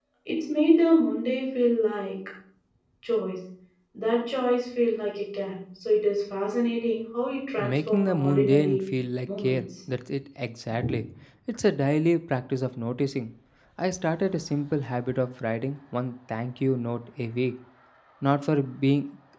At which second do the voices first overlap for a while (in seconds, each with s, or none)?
7.6 s